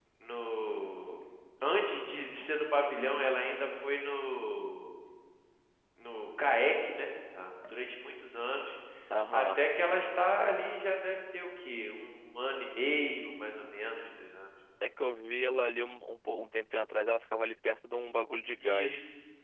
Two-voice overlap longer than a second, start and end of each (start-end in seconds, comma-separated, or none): none